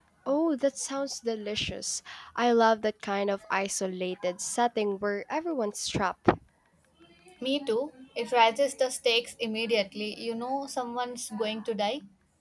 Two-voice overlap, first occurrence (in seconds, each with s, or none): none